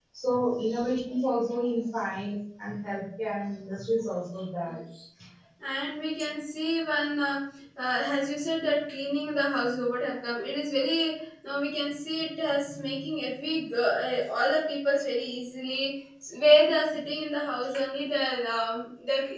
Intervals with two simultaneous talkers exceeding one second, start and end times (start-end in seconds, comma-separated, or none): none